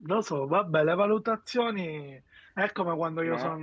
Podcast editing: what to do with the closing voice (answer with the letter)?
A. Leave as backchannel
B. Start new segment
A